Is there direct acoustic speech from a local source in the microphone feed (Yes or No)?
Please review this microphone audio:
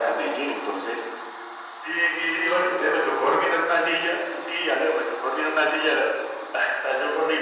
No